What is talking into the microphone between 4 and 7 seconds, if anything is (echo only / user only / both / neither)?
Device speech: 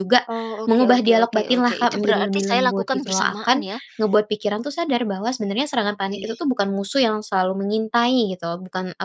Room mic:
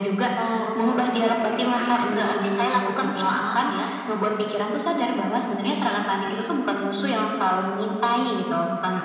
echo only